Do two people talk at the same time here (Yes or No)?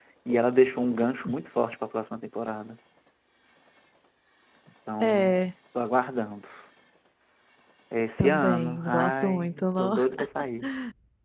Yes